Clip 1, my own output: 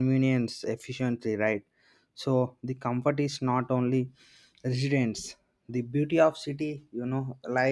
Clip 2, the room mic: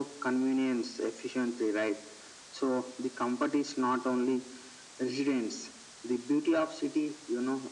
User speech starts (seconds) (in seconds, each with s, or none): none